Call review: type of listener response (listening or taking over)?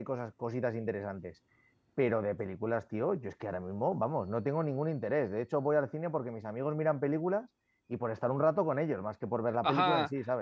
taking over